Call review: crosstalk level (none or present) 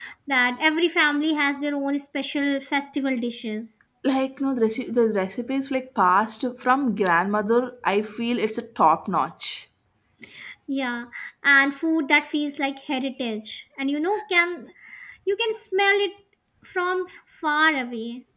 none